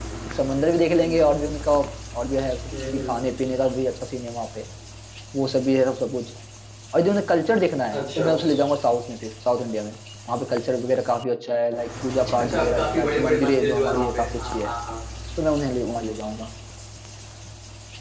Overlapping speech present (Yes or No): Yes